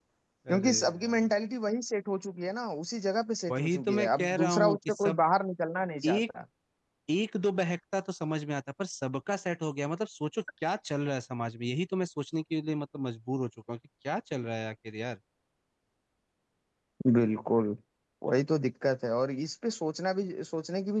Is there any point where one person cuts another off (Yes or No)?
Yes